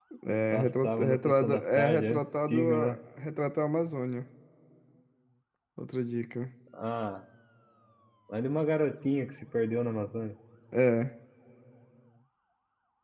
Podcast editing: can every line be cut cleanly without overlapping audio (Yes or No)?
No